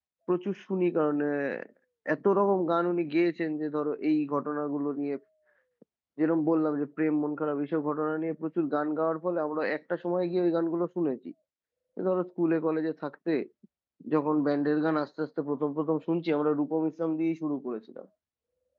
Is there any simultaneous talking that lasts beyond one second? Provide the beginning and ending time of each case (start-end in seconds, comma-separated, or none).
none